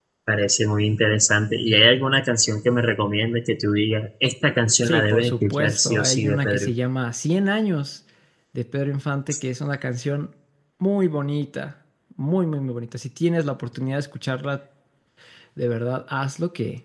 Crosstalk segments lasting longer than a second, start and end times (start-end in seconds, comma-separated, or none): 4.8-6.7